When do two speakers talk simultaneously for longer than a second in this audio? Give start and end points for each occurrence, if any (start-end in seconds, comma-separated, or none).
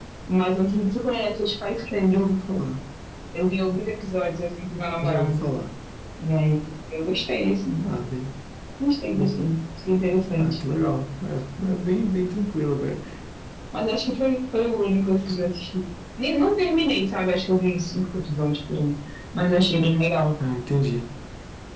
none